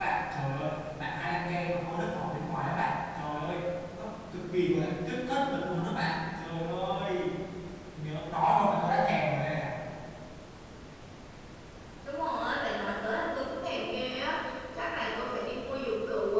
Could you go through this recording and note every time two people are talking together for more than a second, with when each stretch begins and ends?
none

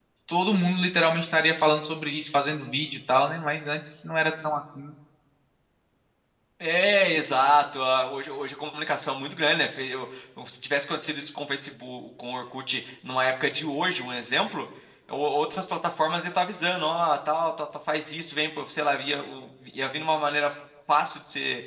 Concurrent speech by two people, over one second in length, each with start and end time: none

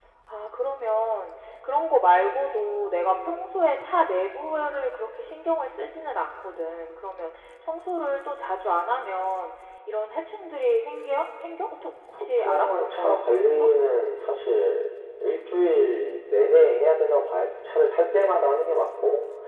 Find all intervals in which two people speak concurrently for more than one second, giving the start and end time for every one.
12.2-13.7

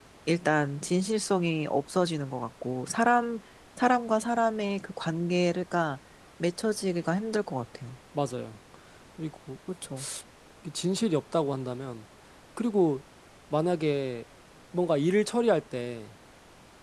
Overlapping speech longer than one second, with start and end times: none

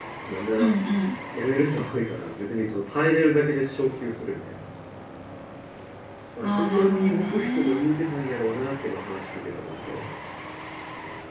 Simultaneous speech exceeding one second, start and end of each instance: 6.4-7.9

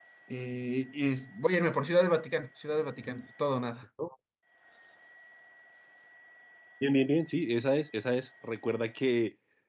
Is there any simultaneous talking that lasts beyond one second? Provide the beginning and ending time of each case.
none

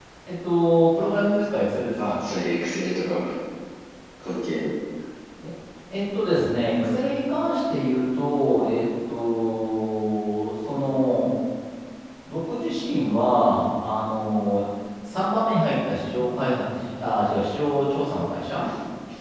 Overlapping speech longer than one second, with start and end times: none

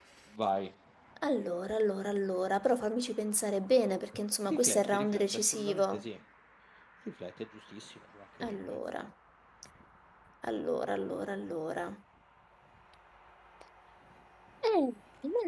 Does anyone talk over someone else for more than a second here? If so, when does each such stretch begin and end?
4.4-6.0

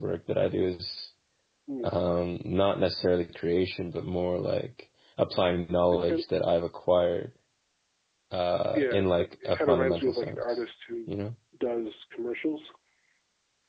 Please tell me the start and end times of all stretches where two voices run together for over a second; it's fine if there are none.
8.8-10.4

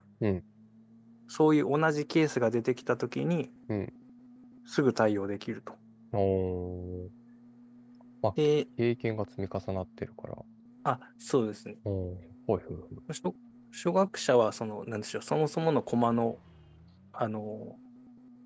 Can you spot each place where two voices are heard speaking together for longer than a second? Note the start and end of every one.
none

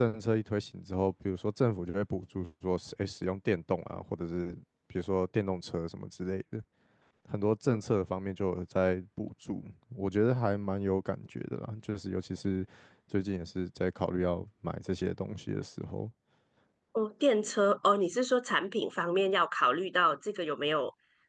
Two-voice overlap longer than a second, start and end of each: none

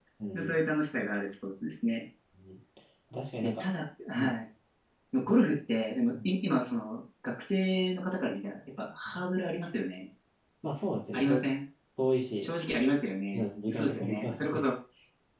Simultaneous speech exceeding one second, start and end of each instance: 13.3-14.6

